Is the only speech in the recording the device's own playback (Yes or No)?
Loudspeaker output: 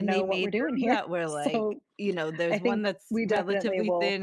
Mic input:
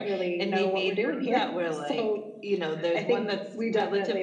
Yes